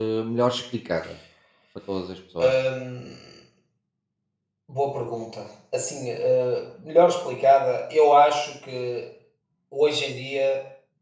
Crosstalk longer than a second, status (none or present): none